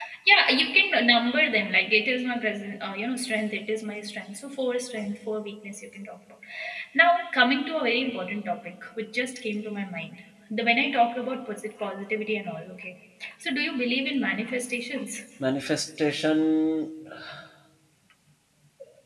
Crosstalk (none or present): none